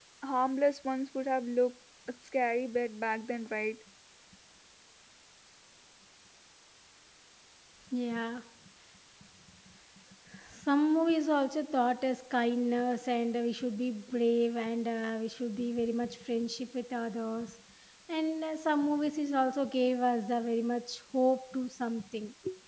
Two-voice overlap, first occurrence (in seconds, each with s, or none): none